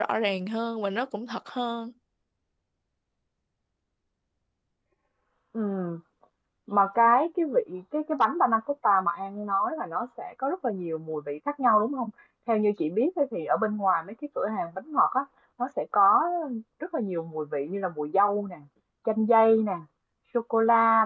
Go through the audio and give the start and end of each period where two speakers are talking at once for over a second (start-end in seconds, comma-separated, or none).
none